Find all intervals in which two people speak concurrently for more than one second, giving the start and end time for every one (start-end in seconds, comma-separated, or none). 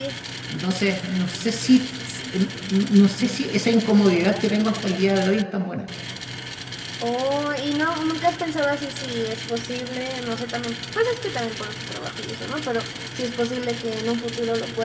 none